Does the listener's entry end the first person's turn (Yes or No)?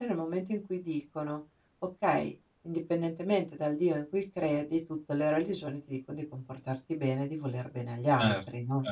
Yes